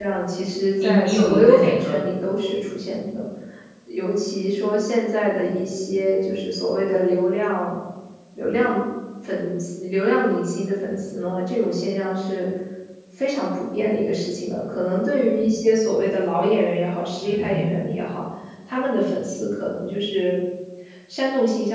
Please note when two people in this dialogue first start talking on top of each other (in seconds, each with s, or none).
0.8 s